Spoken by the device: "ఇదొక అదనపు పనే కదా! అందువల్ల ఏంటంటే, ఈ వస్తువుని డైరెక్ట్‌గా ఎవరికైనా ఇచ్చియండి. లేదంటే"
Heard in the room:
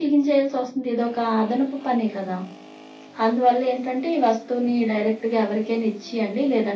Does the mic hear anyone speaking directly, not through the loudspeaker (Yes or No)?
No